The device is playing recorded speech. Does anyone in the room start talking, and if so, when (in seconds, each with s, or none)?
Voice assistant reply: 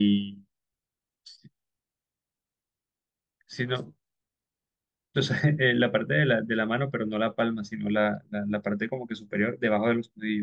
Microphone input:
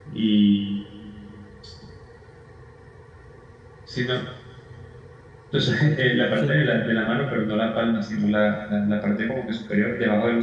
5.6 s